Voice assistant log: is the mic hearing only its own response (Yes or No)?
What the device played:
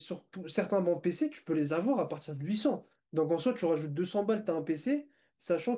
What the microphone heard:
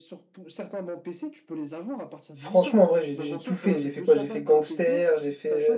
No